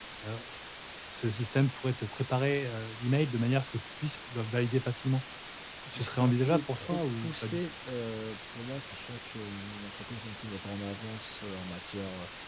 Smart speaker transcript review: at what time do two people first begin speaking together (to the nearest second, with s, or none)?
6 s